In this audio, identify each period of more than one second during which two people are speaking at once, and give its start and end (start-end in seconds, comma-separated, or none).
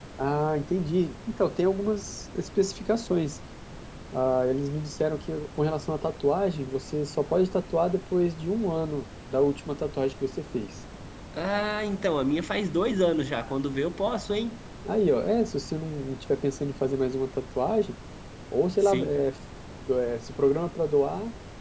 none